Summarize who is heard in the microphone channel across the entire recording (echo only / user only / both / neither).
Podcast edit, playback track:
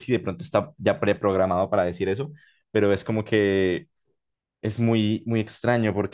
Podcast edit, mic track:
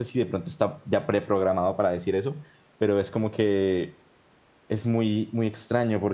echo only